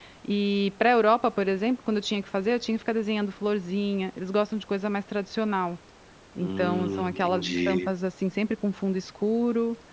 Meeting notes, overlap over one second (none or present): present